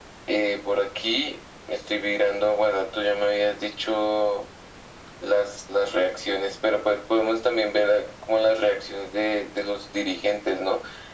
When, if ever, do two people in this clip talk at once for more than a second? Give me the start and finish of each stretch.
none

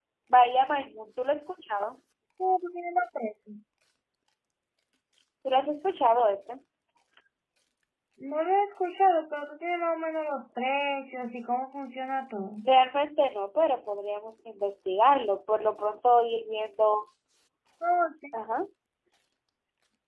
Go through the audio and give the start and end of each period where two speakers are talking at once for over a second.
none

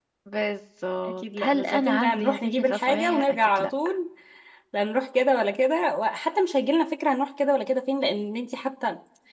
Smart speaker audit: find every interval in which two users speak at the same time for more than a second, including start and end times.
1.2-3.7

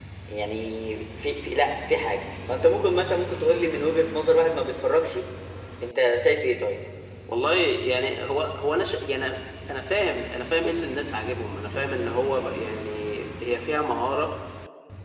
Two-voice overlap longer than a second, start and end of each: none

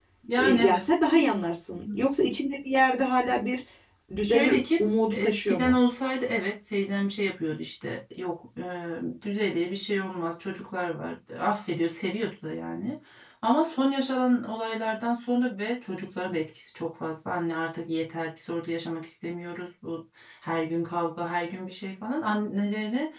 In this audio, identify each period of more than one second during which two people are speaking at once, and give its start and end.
4.2-5.8

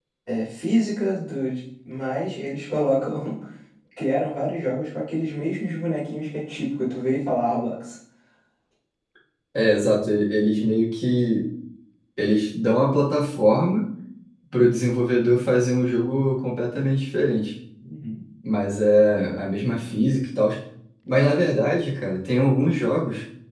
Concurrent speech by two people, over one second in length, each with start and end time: none

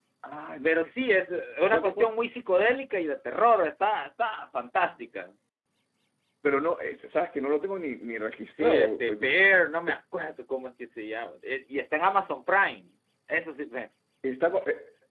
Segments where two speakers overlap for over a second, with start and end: 8.6-10.0

